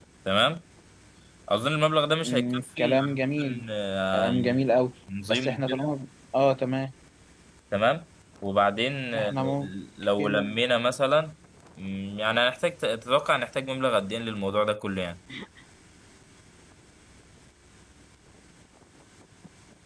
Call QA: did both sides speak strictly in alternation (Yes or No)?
No